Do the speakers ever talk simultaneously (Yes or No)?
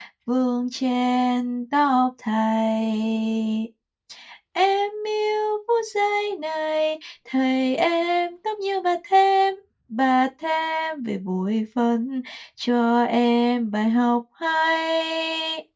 No